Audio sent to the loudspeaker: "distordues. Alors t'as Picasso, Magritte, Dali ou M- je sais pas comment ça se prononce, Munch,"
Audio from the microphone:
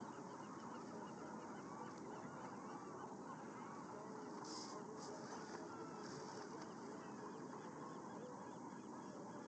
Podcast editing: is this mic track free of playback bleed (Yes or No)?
Yes